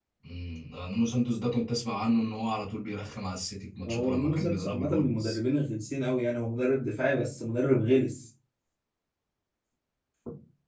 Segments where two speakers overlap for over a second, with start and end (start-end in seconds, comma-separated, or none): 3.9-5.4